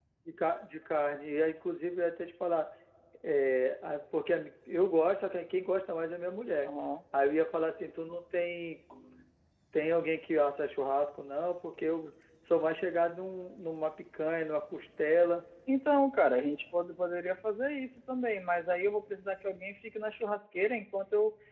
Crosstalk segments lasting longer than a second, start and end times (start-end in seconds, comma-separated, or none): none